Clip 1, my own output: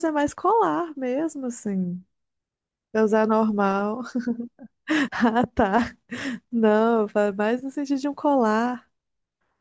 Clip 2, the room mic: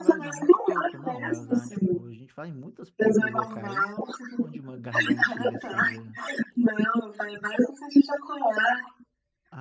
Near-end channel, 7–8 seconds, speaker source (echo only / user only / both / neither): echo only